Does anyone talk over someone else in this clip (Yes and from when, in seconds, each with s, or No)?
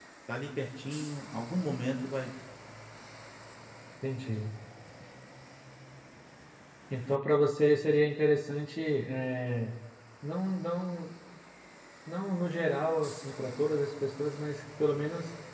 No